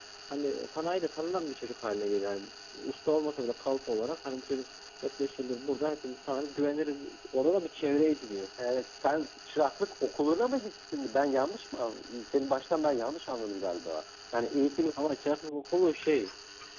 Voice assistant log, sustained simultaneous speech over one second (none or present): none